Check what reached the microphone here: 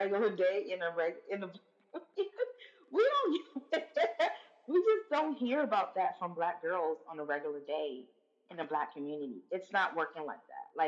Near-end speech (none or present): none